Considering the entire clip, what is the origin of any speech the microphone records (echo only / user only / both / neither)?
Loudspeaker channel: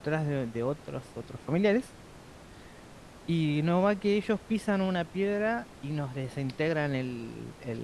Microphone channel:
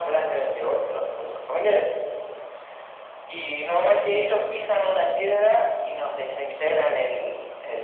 echo only